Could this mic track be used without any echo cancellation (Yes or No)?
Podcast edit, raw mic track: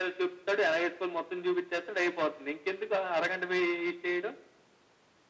No